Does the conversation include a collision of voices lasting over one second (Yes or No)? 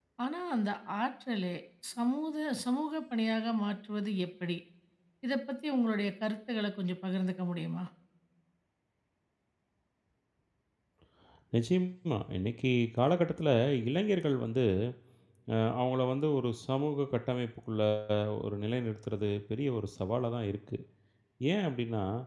No